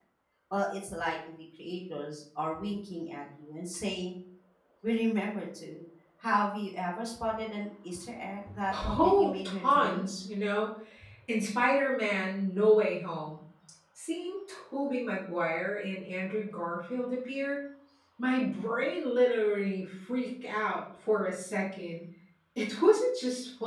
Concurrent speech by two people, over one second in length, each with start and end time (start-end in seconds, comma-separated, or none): 8.7-10.1